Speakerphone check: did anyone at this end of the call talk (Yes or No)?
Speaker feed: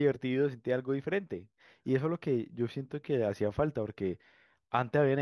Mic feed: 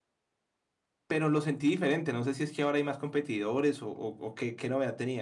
Yes